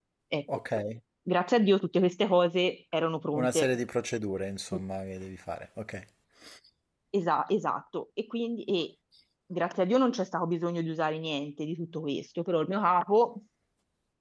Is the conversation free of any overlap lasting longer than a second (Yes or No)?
Yes